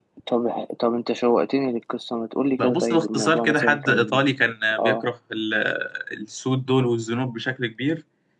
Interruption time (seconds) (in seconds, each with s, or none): 2.6 s